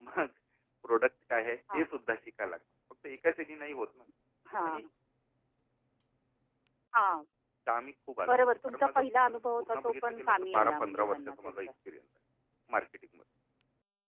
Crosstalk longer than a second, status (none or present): present